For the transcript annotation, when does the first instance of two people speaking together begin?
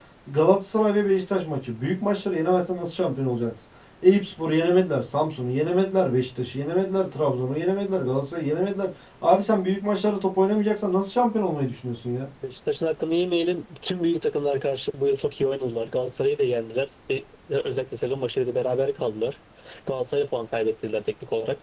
none

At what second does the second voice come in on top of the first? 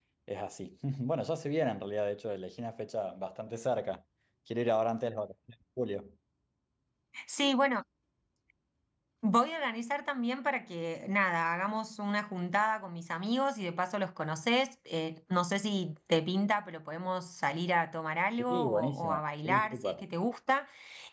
18 s

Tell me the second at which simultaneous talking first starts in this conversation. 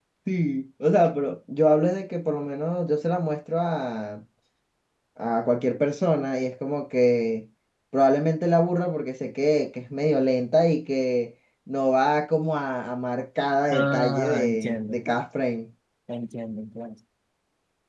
14 s

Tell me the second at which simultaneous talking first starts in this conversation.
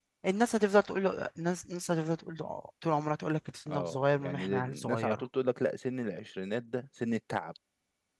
4 s

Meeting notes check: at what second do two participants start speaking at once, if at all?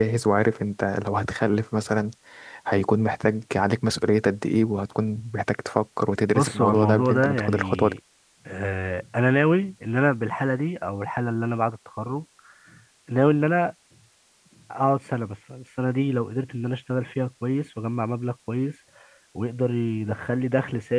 6 s

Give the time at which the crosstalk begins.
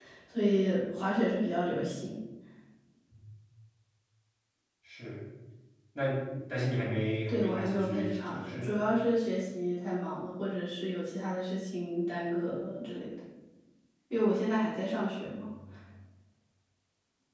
7 s

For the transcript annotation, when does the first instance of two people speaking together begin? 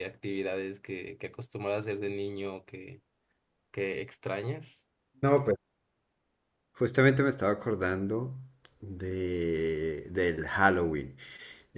none

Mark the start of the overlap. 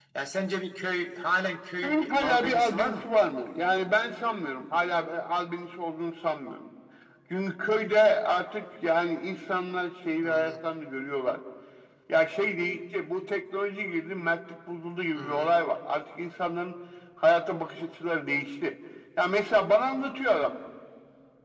2 s

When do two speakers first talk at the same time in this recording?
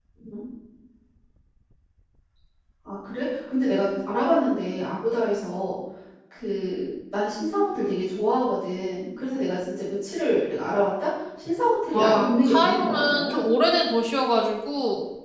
12 s

